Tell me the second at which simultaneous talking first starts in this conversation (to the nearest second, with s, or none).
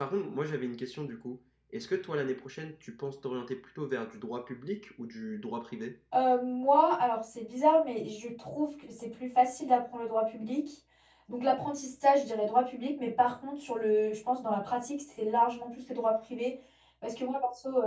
none